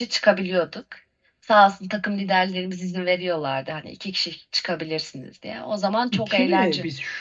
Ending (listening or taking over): taking over